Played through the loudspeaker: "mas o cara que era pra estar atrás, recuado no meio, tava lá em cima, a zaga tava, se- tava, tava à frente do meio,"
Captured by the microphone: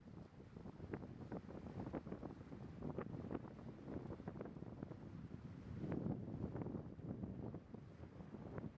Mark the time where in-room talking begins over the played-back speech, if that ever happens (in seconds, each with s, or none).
none